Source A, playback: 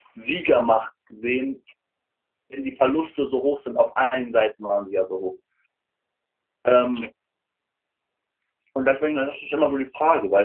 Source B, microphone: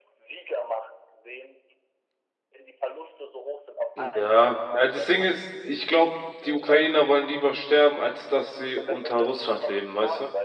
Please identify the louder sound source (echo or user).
user